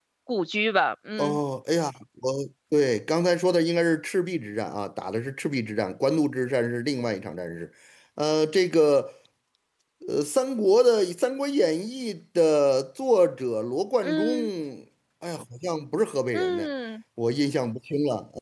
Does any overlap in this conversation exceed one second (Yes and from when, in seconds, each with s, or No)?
No